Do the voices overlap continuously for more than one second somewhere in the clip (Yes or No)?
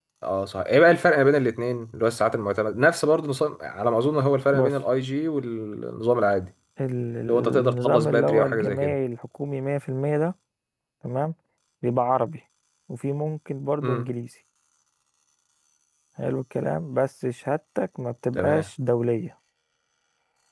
Yes